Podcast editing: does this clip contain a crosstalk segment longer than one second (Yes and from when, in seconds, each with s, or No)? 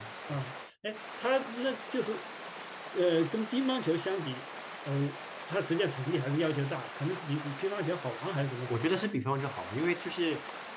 No